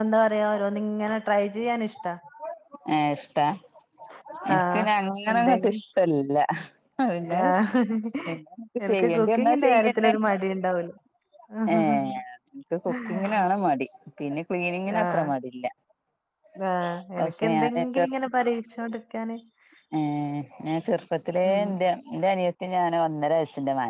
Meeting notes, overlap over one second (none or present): present